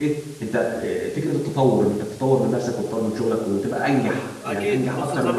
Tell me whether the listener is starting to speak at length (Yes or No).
Yes